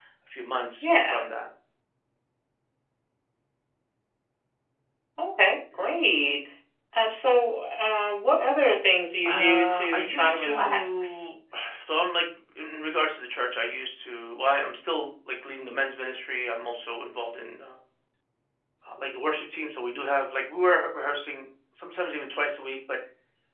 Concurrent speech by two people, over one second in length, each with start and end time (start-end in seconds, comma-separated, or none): 9.2-11.3